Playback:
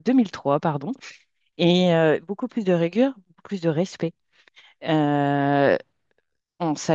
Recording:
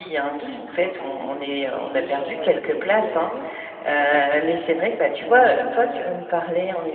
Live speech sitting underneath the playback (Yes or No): No